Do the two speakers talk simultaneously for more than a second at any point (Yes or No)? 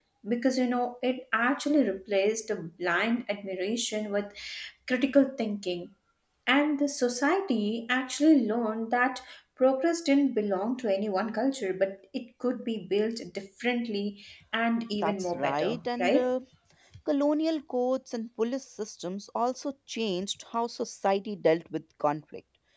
Yes